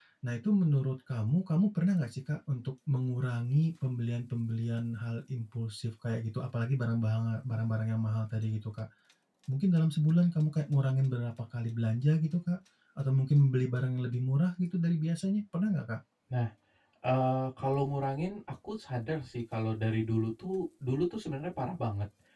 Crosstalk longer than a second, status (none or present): none